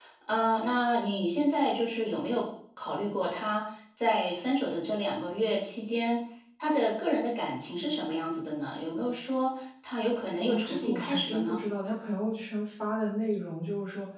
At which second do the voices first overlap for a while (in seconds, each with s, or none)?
10.4 s